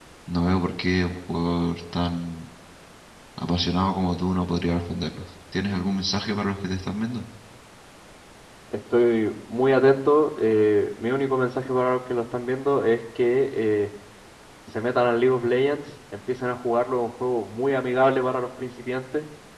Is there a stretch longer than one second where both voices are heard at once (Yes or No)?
No